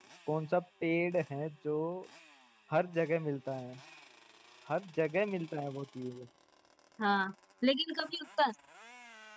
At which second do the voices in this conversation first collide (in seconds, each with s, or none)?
none